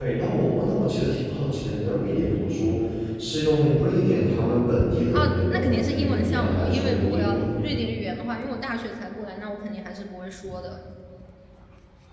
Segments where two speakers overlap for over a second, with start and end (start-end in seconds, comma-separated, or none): 5.1-7.5